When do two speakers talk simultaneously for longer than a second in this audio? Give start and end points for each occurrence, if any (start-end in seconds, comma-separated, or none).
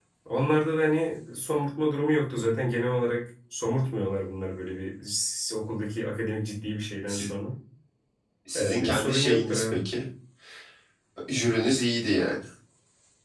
8.6-9.8